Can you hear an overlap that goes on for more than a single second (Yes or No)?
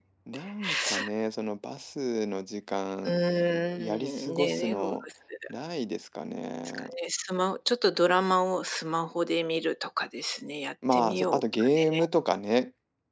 Yes